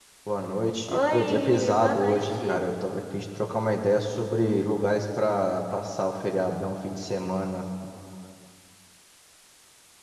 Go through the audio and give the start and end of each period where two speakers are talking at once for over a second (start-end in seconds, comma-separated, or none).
0.9-2.6